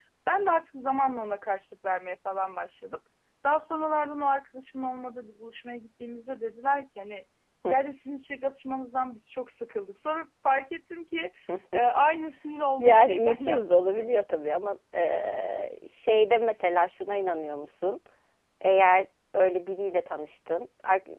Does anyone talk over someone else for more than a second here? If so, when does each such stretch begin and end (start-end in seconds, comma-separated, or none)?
12.8-14.1